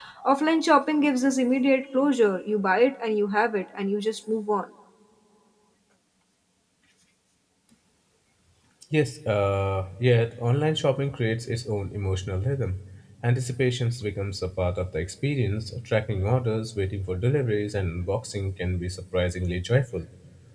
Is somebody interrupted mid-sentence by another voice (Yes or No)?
No